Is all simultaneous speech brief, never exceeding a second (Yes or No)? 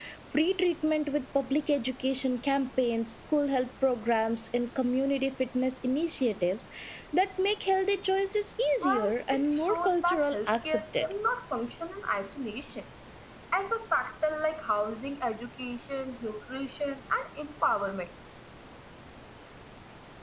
No